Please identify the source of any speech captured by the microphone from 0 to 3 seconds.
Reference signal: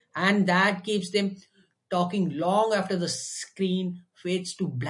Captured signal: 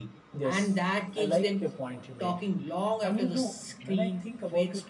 both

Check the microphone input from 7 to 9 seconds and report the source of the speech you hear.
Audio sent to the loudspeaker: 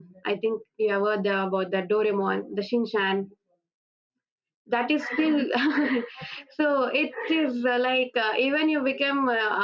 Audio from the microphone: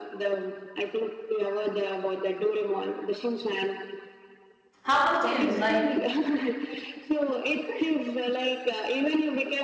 echo only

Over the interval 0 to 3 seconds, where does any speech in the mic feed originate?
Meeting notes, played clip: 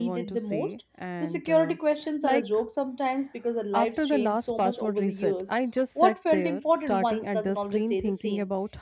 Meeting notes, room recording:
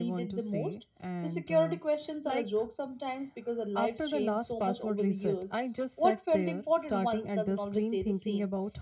echo only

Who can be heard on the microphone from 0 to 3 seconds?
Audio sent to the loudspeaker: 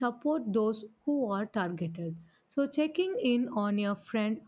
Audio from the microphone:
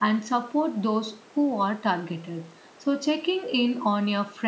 echo only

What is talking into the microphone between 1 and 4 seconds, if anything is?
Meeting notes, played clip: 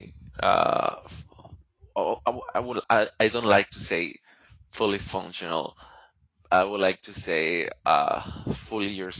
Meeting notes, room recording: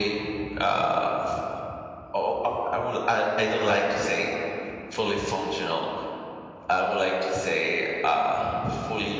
echo only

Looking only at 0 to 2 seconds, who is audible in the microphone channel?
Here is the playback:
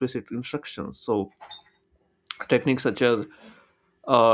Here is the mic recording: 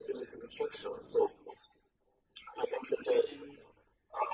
echo only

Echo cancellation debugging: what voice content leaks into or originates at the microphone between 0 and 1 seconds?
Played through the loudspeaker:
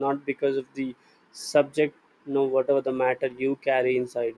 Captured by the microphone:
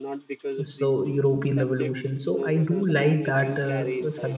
both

